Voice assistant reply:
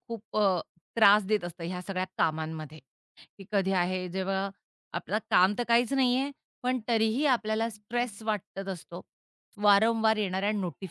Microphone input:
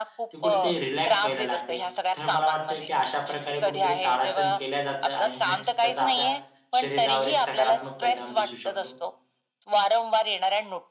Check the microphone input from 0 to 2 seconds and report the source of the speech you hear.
both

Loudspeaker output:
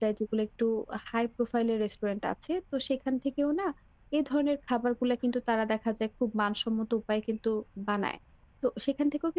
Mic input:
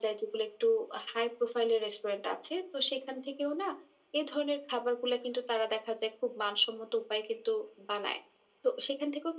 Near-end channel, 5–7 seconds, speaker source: echo only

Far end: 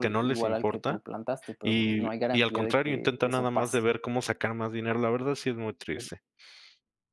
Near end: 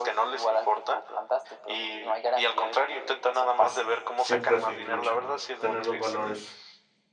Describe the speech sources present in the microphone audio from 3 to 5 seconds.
both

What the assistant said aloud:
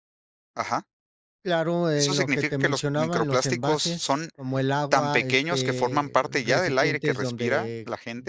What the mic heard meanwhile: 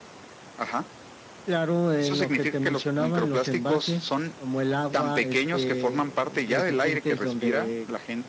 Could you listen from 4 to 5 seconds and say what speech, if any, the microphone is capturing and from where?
echo only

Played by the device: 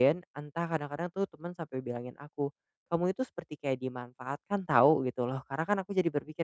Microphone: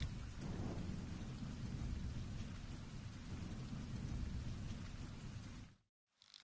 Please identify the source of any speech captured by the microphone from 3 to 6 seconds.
neither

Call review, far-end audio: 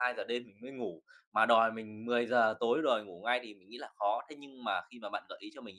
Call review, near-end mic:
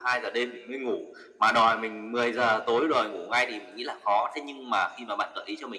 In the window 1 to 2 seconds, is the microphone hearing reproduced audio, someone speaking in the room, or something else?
echo only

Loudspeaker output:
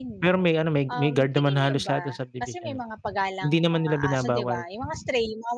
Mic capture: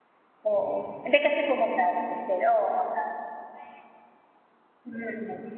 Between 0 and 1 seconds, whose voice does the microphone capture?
user only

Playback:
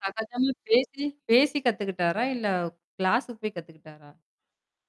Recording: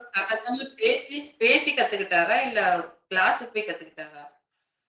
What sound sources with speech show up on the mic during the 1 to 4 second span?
echo only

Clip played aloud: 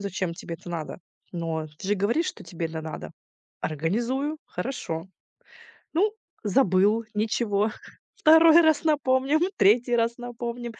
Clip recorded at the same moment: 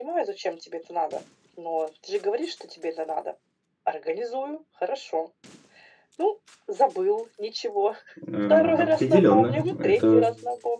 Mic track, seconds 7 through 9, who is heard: both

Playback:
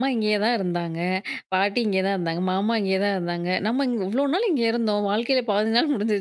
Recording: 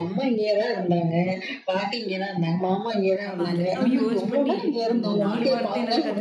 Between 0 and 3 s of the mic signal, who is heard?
echo only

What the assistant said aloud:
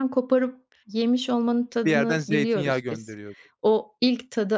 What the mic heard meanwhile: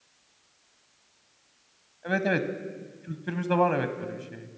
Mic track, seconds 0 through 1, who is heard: neither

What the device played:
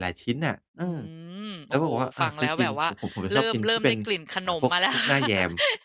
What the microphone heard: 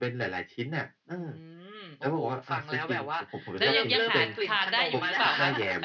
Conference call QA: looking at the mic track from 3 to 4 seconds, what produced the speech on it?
both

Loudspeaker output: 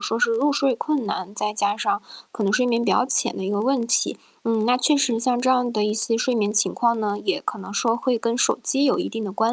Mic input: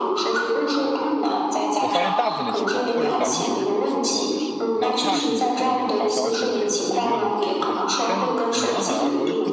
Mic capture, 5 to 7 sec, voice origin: both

